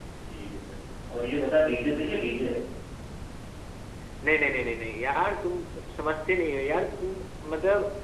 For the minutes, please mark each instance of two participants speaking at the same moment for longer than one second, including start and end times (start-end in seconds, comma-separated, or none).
none